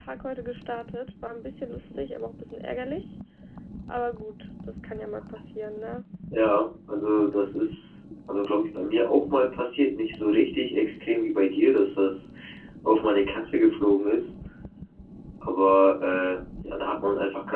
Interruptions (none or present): none